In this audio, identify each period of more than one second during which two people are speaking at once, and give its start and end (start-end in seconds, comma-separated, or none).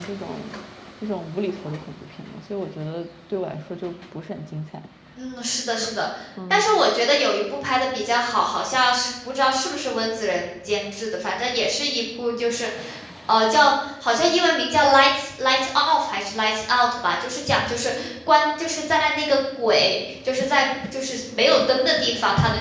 none